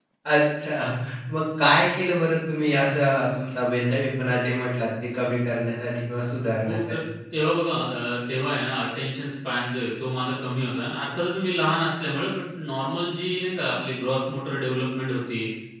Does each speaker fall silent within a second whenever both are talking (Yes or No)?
Yes